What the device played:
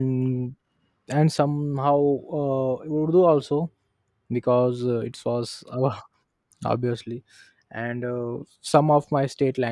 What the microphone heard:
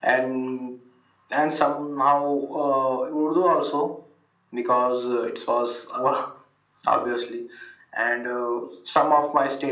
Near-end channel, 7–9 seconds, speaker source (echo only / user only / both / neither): echo only